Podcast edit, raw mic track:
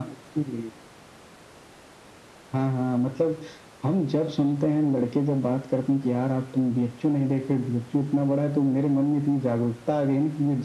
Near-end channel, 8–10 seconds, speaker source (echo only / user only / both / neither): echo only